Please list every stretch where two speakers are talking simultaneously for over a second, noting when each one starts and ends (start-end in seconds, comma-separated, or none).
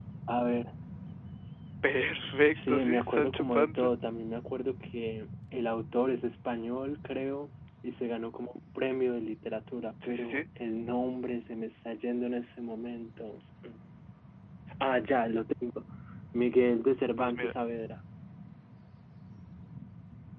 2.5-3.9